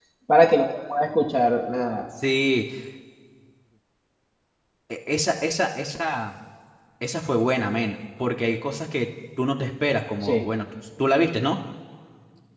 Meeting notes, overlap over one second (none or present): none